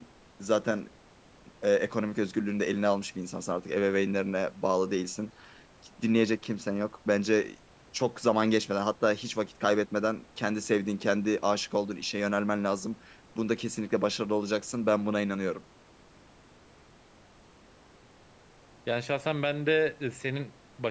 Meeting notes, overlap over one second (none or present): none